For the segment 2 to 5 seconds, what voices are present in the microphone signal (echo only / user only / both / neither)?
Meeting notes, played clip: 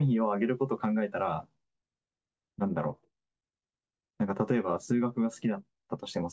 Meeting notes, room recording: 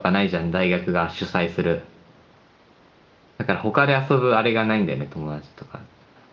user only